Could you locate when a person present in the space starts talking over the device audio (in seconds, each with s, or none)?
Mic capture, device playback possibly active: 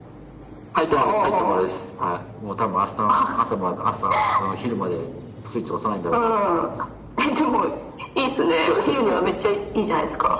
none